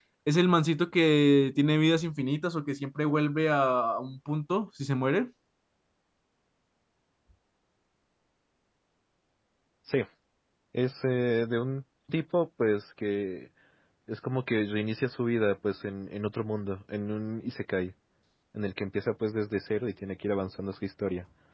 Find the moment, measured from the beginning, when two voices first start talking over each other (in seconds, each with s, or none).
none